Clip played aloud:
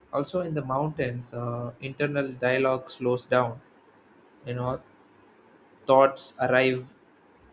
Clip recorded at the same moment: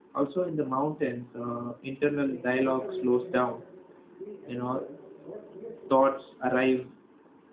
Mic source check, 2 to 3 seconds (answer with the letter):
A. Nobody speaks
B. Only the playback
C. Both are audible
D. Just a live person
C